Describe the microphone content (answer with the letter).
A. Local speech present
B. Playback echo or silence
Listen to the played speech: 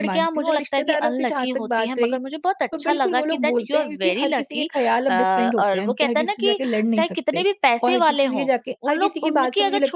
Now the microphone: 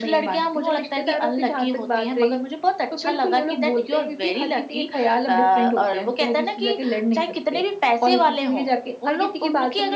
B